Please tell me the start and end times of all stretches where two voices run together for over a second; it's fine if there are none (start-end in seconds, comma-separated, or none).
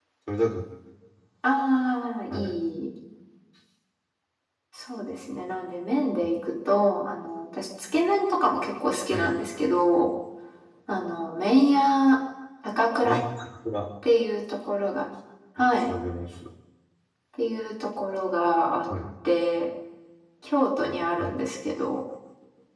none